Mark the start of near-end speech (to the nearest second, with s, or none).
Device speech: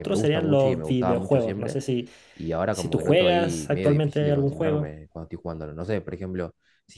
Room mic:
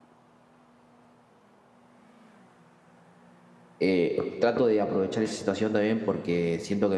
4 s